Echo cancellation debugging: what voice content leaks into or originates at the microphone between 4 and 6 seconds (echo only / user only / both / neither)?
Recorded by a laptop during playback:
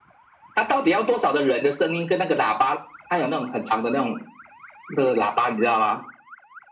echo only